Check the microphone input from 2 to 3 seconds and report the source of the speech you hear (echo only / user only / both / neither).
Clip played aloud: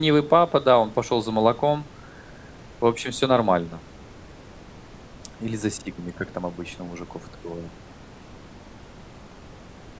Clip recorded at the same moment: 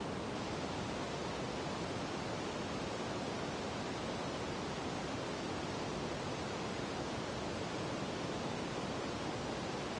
neither